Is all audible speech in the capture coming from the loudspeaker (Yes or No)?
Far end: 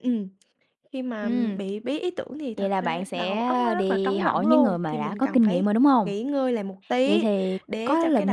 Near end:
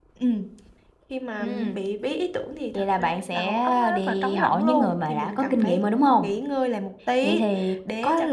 Yes